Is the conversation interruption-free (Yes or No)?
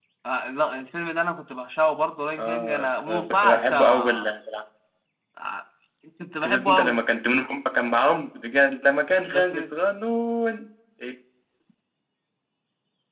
No